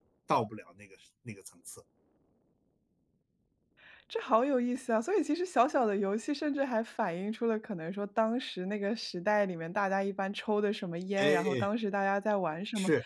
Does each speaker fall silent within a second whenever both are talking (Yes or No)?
Yes